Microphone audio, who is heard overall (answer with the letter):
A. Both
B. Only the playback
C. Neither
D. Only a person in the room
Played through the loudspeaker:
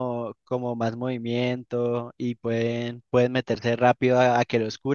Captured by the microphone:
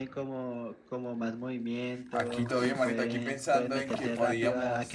A